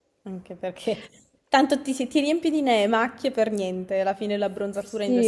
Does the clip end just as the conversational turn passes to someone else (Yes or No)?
Yes